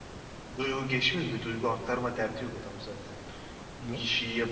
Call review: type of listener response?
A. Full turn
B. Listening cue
B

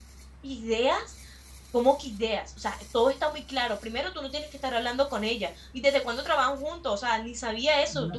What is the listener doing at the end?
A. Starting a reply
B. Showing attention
A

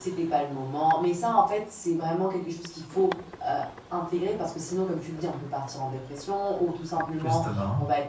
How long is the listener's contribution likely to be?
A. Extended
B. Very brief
B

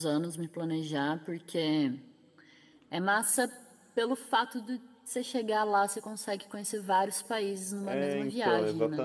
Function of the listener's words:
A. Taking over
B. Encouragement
A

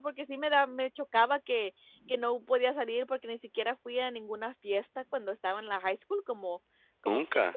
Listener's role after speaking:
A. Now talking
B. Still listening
B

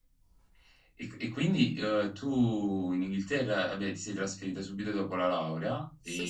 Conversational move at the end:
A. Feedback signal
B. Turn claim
B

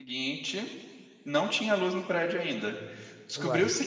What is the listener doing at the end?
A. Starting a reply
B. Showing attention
B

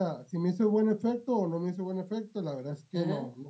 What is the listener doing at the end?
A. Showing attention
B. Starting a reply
A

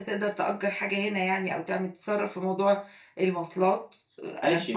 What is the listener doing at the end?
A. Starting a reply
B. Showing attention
A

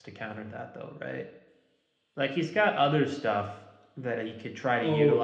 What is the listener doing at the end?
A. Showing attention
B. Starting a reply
A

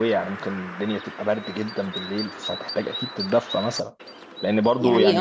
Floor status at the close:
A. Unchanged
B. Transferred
A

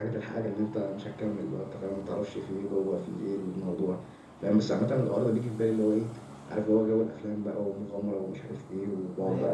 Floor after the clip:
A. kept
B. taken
B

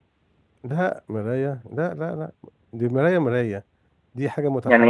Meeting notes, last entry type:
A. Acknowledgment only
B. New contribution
A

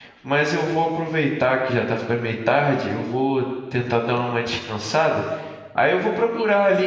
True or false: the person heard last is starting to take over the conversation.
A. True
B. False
B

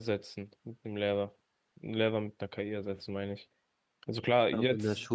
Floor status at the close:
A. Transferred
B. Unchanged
A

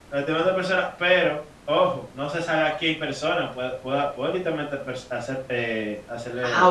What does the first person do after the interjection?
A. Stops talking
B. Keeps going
A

